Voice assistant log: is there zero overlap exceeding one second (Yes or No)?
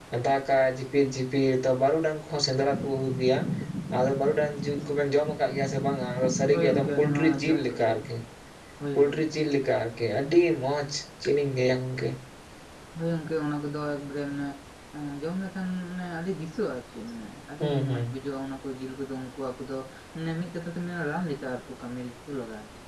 No